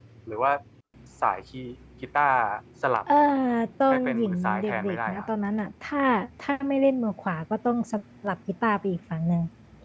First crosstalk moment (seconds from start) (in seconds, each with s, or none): 3.9 s